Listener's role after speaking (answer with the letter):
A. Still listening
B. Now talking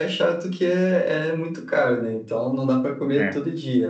A